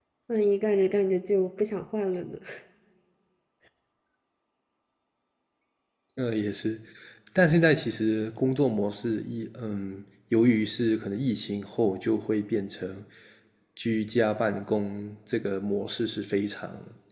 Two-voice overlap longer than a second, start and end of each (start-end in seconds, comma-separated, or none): none